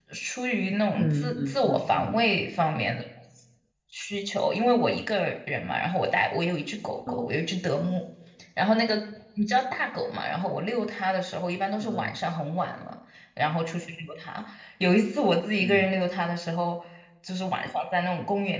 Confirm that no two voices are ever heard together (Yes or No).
No